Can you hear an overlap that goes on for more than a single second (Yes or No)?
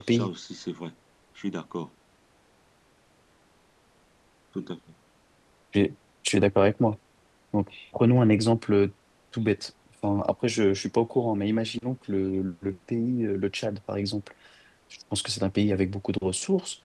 No